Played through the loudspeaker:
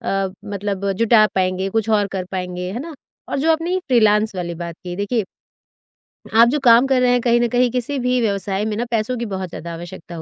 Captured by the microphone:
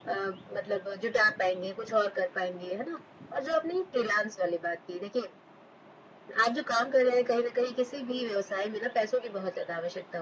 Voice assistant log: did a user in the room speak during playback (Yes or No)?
No